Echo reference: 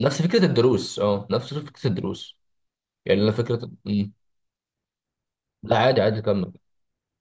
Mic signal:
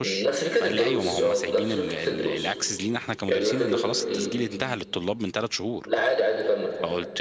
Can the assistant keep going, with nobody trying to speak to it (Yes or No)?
No